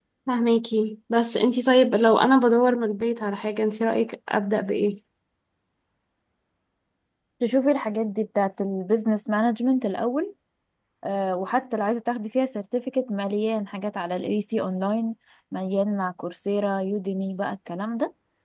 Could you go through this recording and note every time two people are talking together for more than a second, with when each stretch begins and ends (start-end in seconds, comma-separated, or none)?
none